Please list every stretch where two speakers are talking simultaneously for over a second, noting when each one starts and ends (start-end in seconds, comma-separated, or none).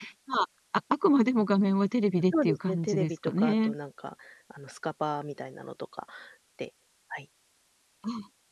2.4-3.7